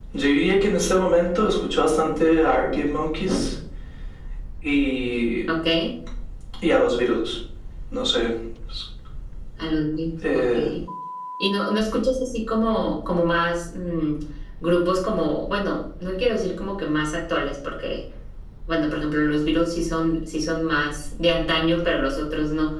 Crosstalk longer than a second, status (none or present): none